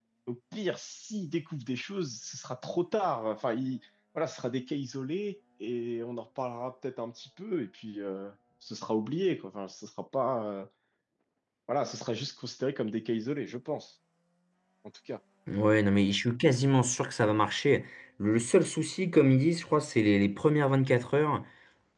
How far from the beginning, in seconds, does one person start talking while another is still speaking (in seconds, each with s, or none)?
none